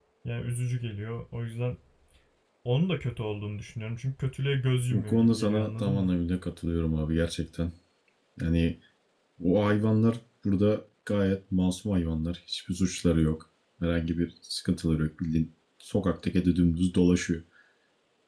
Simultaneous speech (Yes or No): Yes